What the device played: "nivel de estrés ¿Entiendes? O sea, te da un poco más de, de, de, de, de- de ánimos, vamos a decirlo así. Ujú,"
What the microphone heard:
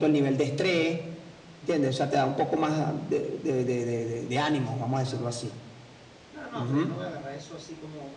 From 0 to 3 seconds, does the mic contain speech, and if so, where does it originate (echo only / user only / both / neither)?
echo only